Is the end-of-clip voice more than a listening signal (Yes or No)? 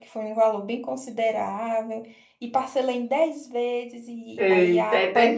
Yes